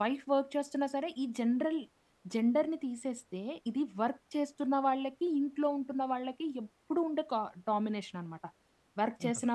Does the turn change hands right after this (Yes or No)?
No